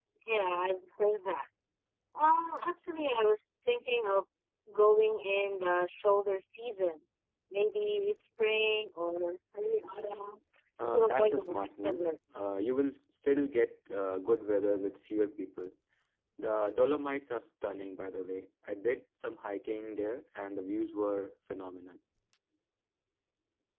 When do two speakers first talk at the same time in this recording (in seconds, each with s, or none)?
10.8 s